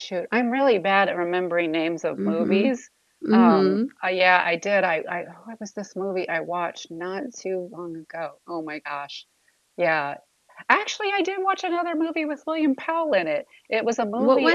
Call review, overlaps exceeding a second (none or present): none